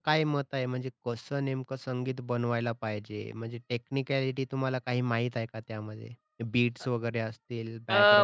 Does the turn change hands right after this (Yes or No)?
Yes